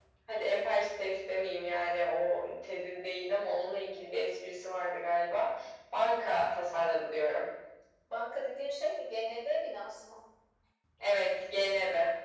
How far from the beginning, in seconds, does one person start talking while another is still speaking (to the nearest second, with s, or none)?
none